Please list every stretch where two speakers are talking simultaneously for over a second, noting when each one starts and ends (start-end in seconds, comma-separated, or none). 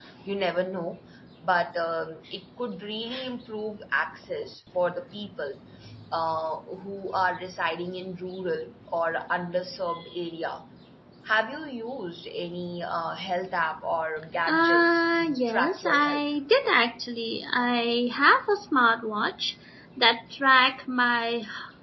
14.5-16.2